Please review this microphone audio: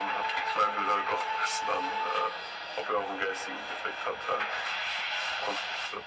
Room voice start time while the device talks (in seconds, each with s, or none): none